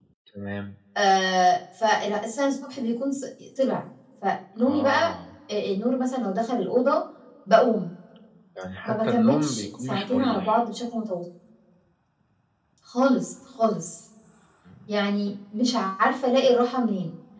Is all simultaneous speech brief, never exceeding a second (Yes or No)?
No